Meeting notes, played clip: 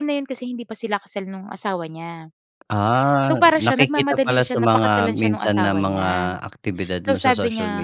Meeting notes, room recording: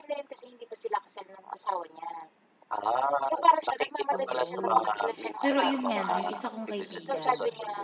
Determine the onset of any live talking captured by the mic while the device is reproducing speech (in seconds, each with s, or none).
4.1 s